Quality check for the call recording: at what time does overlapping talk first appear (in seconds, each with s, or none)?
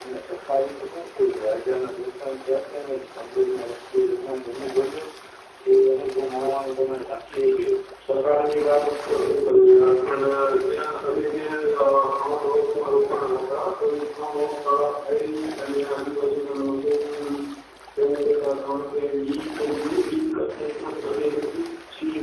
none